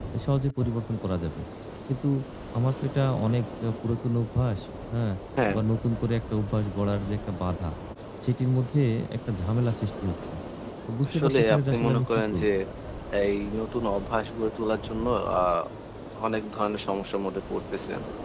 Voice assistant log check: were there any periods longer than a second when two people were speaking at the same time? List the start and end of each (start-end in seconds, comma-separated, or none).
11.1-12.4